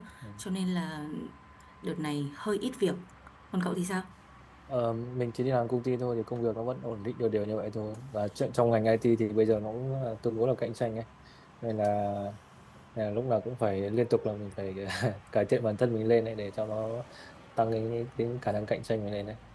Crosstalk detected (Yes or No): No